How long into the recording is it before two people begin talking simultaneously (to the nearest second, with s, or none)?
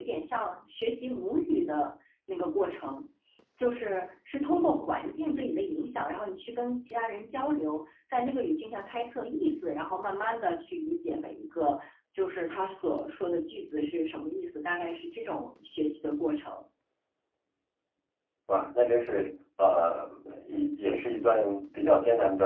none